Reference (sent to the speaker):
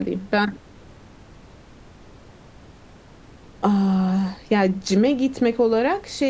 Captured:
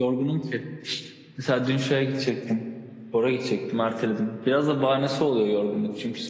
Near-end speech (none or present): present